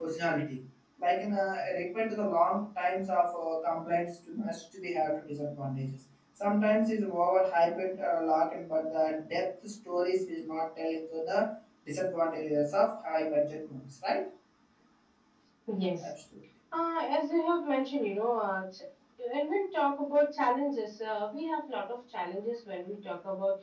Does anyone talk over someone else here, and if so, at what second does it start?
none

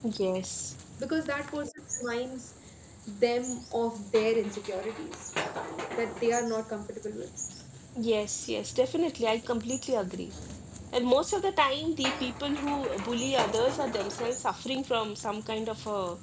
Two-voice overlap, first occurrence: none

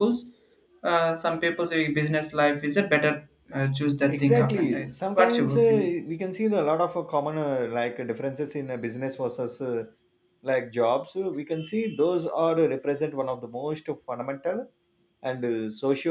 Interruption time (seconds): 4.1 s

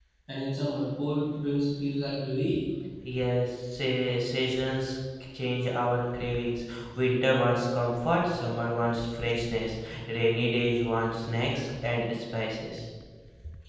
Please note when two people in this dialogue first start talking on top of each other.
none

